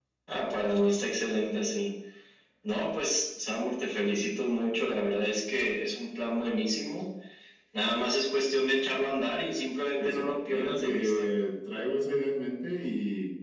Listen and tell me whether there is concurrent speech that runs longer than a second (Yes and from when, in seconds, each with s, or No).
Yes, from 10.0 s